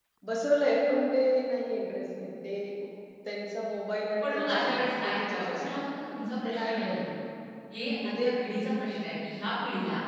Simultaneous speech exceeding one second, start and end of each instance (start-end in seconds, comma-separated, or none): 4.2-5.8